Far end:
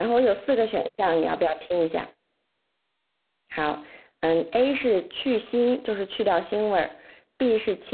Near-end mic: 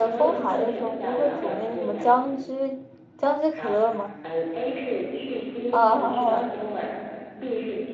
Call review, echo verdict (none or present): present